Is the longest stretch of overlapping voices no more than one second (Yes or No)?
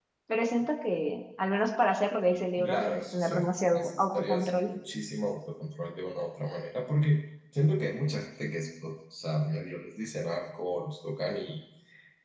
No